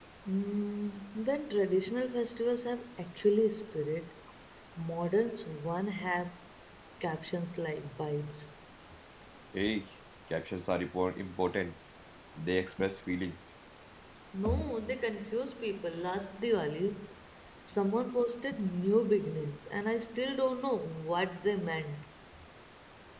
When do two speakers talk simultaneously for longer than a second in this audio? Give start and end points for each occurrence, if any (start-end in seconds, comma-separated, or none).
none